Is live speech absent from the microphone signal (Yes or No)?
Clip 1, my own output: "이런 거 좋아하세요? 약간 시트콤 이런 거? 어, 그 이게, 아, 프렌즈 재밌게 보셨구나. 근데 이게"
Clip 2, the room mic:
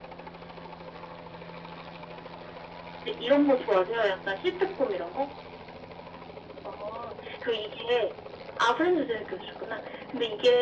Yes